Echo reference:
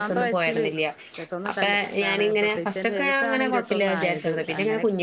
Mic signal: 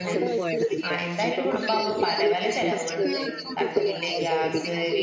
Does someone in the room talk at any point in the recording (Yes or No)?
Yes